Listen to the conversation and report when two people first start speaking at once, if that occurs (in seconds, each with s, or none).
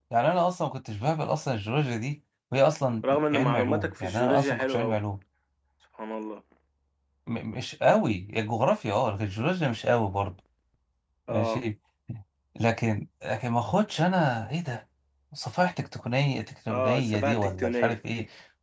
3.1 s